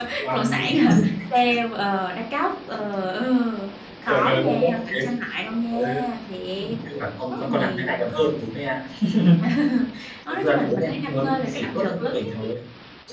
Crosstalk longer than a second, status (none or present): present